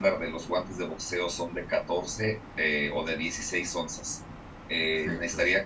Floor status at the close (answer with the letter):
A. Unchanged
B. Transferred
A